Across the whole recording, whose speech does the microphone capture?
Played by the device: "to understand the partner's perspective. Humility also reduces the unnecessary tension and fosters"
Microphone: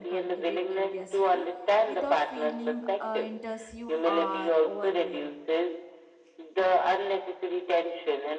both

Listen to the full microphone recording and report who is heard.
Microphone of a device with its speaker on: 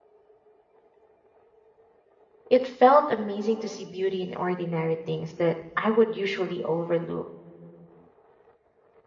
user only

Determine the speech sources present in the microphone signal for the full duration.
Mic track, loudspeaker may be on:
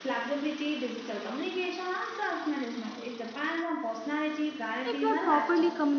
both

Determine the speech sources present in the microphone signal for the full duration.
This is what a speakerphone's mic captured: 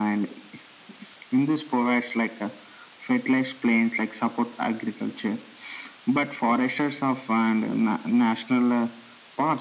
echo only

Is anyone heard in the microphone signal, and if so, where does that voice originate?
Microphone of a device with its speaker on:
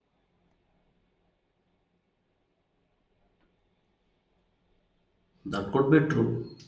user only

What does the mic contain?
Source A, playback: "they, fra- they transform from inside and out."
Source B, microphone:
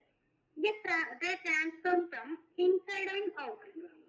echo only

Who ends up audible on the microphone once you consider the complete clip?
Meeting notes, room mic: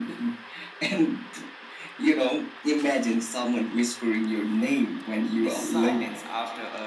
both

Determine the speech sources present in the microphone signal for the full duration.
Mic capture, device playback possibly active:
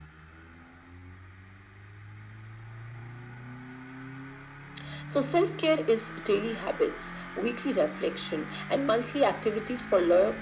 echo only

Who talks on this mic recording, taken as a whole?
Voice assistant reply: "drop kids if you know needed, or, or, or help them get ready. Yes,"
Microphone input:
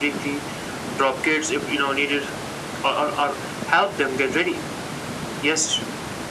echo only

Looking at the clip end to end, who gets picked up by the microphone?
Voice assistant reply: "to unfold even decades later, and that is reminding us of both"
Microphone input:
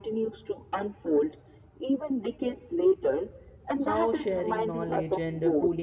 both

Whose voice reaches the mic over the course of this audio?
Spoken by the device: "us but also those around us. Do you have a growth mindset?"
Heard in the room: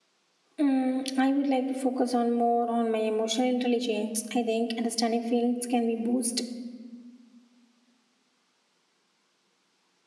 user only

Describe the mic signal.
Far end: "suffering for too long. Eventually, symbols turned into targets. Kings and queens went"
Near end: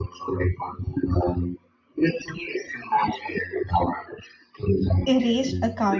both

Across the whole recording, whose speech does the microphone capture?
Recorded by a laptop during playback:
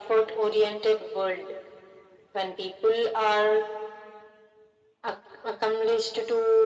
echo only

